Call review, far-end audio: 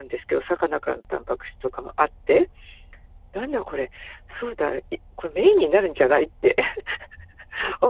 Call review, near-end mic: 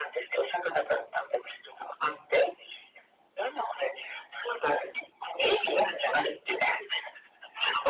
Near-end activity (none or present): none